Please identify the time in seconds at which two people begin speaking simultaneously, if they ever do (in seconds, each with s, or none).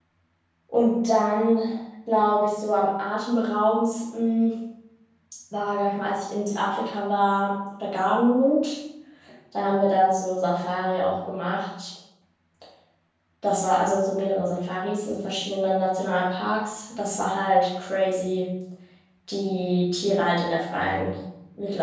none